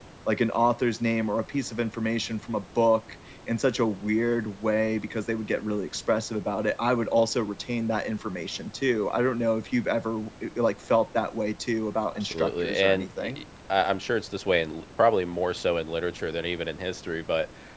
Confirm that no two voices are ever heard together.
No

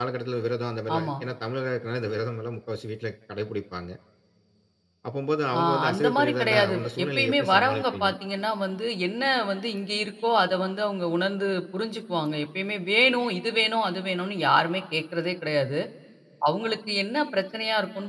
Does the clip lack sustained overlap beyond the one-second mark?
No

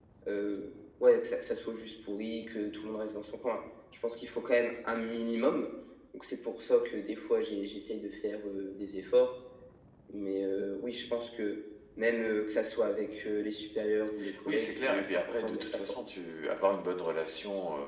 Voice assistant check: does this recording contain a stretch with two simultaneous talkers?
Yes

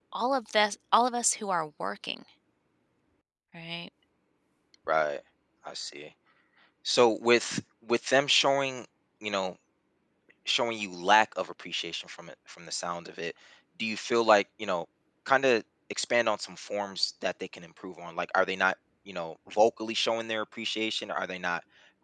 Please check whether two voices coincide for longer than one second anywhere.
No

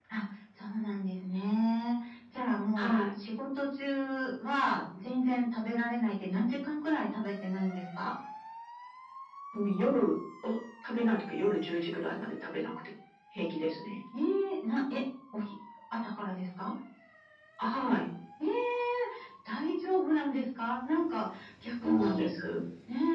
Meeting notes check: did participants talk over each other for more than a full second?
No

